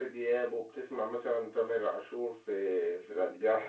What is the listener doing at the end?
taking over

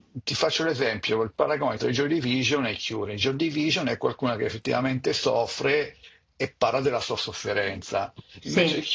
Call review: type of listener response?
listening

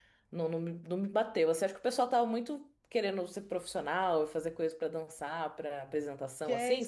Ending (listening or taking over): taking over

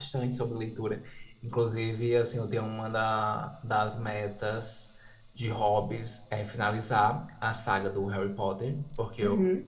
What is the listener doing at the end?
listening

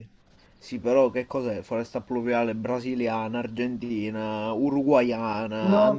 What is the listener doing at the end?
taking over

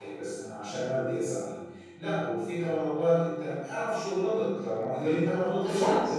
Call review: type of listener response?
listening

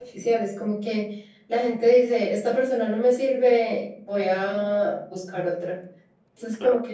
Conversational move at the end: listening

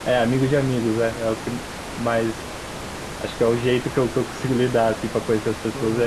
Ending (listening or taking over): taking over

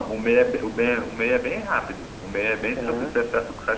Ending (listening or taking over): listening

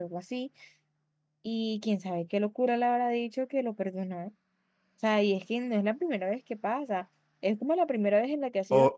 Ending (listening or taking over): taking over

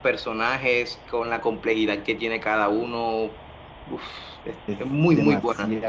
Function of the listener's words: taking over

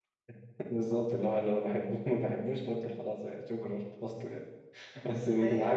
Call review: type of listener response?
listening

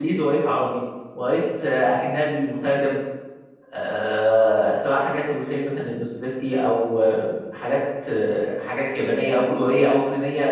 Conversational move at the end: listening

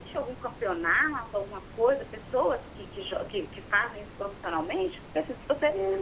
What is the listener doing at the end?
taking over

